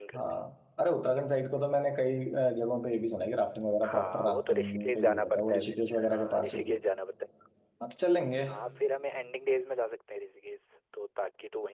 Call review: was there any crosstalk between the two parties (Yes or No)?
Yes